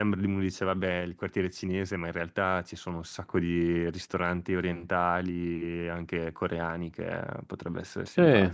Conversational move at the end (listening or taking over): taking over